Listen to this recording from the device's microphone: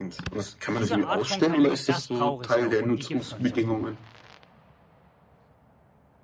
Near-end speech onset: 0.7 s

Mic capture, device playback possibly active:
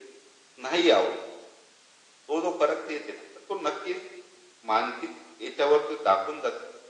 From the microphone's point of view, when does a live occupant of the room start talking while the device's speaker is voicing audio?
none

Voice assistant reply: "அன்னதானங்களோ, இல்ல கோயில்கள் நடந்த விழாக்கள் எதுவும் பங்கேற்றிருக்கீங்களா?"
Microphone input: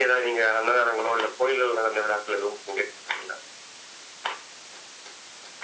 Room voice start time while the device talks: none

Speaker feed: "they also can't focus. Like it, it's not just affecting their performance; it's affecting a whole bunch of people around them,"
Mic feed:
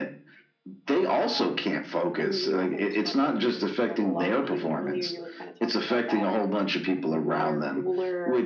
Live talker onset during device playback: 1.0 s

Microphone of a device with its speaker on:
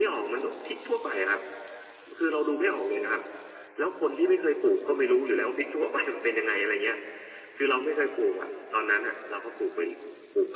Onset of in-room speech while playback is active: none

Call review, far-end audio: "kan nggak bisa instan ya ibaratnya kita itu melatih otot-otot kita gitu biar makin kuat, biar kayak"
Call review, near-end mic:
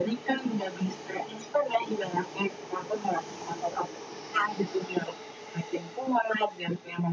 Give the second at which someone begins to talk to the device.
none

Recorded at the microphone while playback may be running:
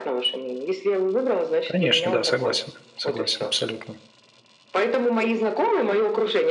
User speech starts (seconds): 1.6 s

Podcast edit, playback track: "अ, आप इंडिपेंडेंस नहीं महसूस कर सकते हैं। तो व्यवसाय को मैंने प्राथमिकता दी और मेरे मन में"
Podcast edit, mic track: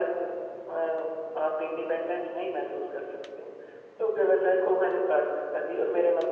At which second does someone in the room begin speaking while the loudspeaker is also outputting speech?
none

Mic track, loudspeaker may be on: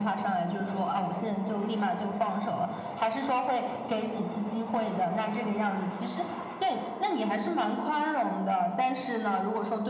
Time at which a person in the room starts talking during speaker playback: none

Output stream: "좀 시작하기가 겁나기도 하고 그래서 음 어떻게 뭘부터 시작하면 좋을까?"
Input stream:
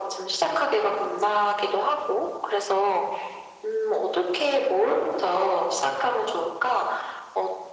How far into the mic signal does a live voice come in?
none

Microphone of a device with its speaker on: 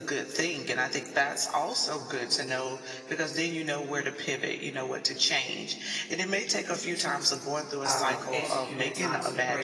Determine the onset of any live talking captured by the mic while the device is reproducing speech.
7.8 s

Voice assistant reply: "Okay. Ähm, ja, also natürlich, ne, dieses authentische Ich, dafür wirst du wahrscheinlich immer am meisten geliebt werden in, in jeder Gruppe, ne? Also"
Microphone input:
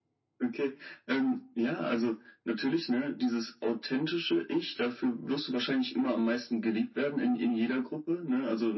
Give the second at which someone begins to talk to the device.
none

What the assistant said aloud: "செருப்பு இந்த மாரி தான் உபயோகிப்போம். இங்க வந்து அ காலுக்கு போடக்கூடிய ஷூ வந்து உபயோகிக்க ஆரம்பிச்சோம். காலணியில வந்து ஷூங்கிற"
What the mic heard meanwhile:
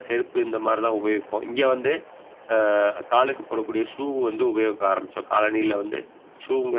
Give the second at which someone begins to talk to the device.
none

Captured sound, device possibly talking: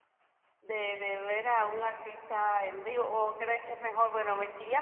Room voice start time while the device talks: 0.6 s

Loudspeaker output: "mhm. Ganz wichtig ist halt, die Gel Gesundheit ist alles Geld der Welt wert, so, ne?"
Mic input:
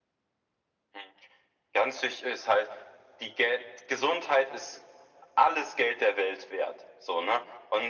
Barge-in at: none

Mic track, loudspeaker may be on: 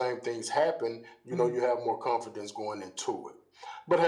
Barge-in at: 1.3 s

